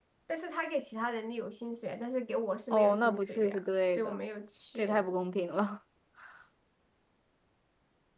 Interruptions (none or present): present